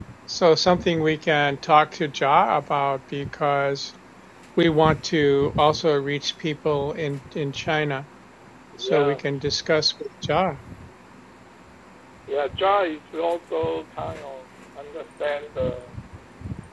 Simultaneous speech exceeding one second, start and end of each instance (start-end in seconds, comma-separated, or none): none